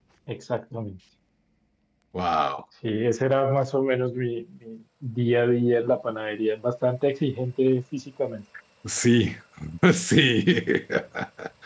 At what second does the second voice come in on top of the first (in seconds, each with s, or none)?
none